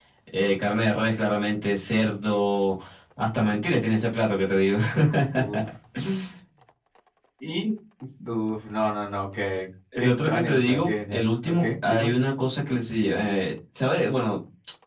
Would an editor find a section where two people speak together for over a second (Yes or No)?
Yes